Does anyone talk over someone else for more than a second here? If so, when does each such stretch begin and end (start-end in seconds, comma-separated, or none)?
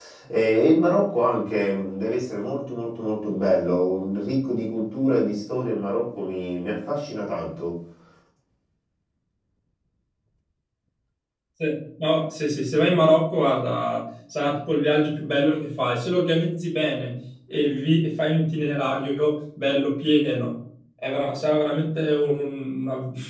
none